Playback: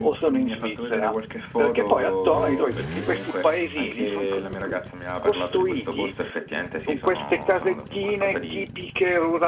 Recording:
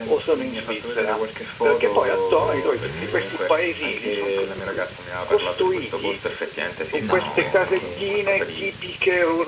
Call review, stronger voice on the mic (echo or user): echo